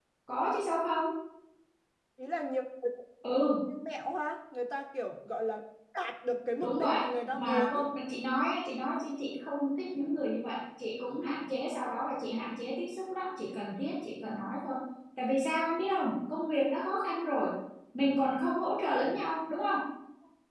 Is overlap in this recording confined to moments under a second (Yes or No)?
No